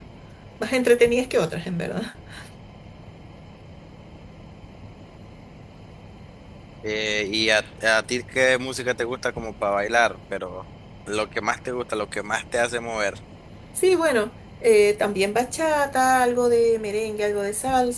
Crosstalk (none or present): none